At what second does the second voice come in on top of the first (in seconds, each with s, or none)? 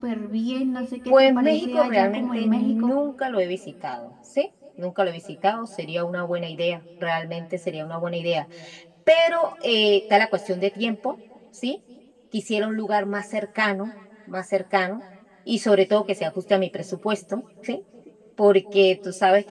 1.1 s